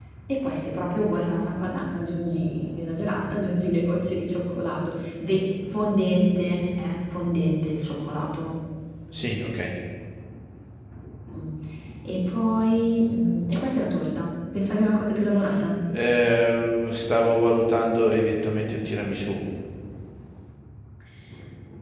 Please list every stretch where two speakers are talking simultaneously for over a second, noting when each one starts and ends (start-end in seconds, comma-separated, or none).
none